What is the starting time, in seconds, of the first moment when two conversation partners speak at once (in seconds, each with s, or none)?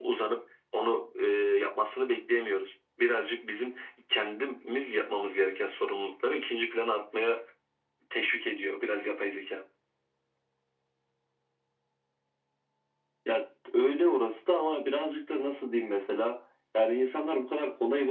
none